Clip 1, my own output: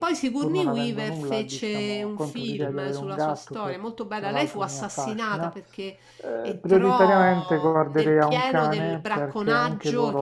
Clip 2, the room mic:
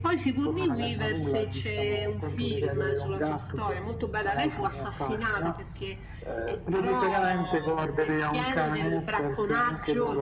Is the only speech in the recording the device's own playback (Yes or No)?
Yes